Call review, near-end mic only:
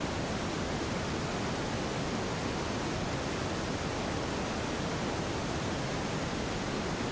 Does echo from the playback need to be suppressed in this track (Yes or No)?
No